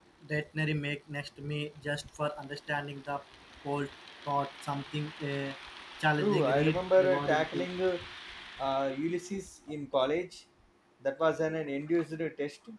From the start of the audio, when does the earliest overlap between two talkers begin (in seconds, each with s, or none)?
6.2 s